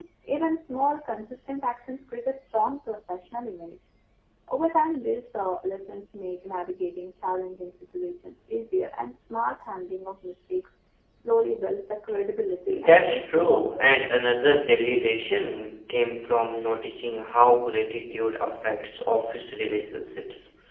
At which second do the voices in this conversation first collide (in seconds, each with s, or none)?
12.7 s